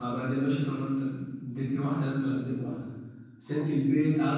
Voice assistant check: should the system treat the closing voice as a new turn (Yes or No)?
No